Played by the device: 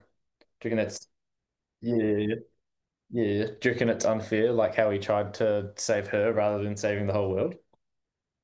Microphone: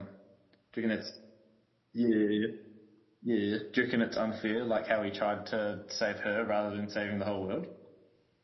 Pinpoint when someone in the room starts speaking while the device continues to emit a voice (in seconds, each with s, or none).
none